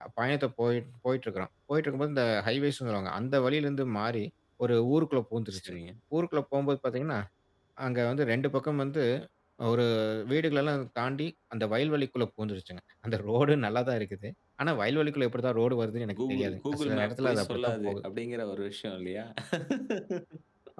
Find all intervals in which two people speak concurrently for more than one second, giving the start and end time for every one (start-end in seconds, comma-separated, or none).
16.1-18.0